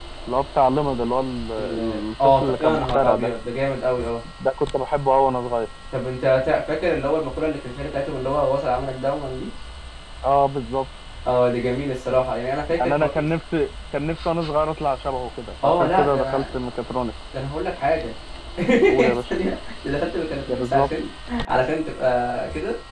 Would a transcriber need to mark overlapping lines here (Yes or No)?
Yes